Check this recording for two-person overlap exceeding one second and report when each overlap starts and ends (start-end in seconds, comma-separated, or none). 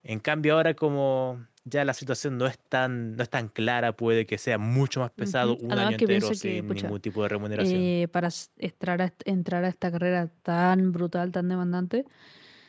5.2-6.9